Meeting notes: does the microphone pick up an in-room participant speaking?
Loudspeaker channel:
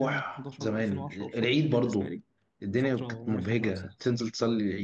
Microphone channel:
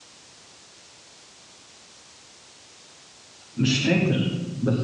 Yes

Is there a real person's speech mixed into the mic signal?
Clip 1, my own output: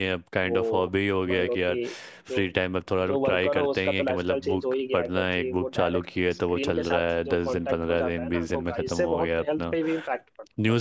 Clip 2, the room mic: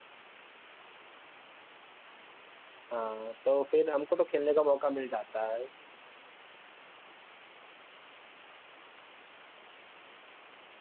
Yes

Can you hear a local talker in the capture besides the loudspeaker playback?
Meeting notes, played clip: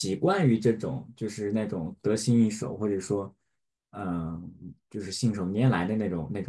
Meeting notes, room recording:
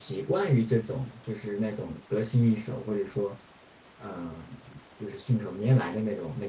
No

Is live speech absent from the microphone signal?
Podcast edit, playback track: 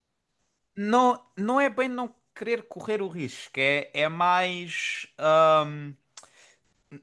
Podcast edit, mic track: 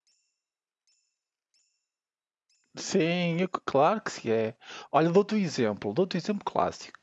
No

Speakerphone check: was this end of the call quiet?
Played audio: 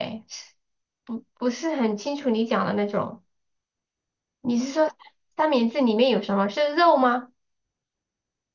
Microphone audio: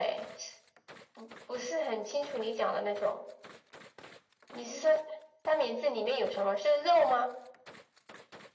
Yes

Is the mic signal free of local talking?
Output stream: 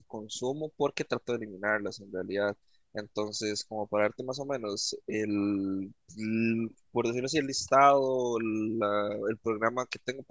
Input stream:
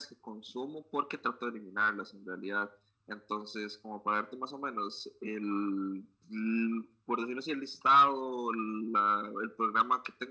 Yes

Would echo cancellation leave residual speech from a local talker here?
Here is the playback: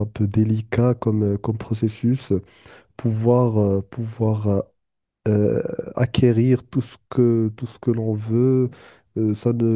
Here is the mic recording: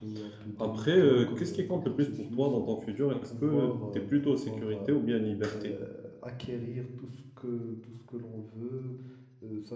Yes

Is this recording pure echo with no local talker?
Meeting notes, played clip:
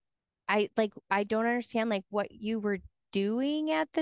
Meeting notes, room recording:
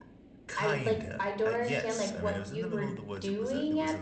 No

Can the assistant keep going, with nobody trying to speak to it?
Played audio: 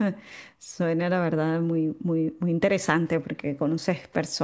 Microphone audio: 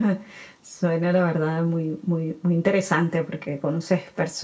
Yes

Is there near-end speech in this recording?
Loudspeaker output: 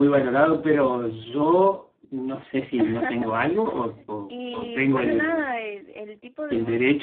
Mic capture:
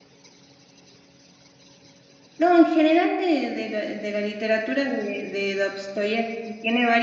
Yes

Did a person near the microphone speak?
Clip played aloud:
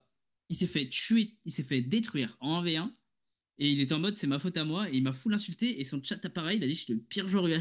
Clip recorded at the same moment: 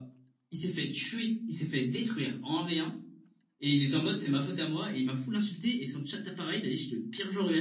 No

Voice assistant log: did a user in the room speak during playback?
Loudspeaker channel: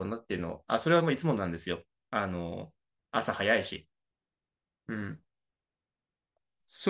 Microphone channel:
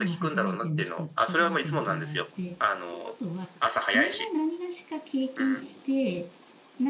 Yes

